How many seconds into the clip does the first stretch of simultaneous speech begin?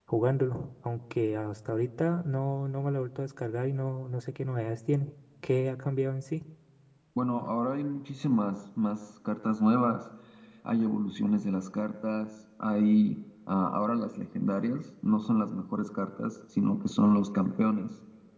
none

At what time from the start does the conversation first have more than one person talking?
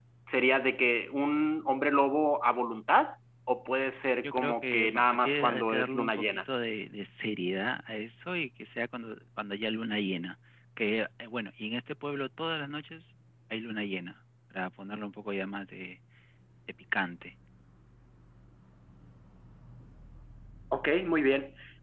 4.2 s

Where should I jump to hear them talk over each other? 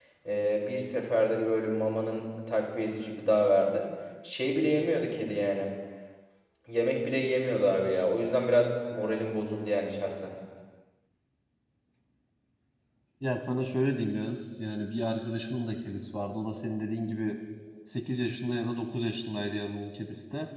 none

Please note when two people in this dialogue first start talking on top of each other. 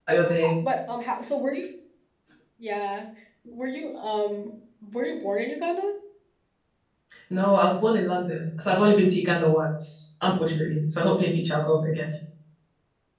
none

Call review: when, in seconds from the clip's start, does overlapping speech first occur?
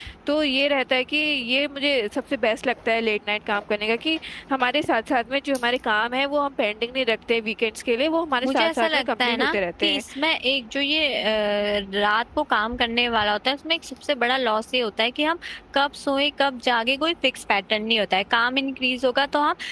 8.4 s

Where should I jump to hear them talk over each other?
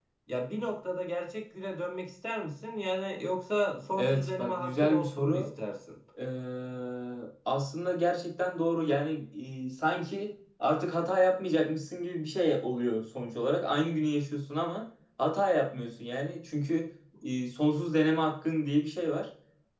4.0 s

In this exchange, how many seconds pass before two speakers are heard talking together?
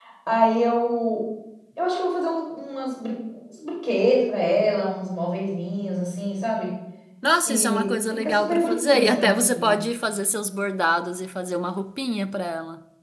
7.5 s

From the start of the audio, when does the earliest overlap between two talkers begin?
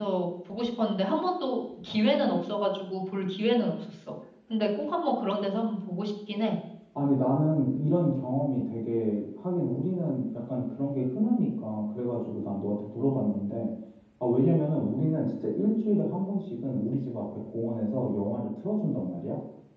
none

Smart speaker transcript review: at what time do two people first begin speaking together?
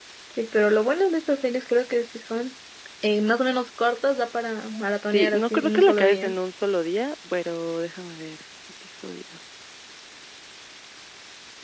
5.1 s

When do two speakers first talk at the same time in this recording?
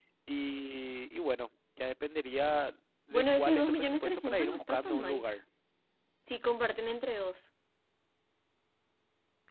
3.1 s

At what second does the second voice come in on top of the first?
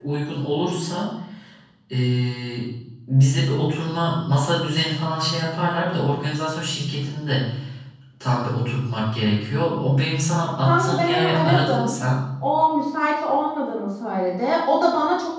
10.6 s

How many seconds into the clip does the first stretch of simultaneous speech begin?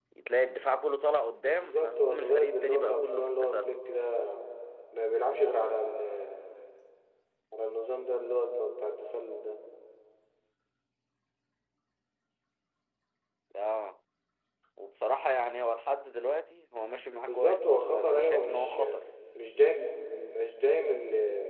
1.4 s

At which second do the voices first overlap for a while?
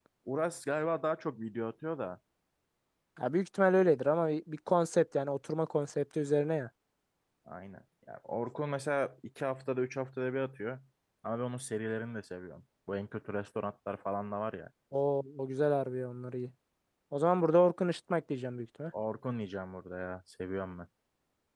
none

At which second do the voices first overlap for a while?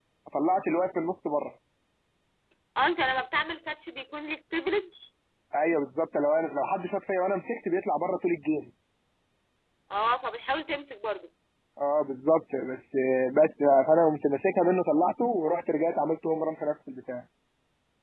none

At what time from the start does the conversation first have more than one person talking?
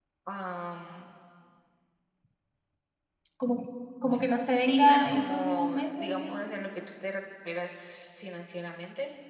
4.5 s

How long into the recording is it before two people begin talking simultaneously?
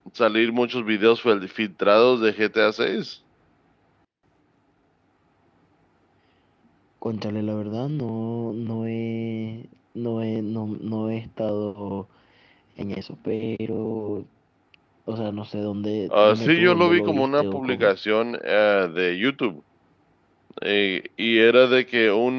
16.1 s

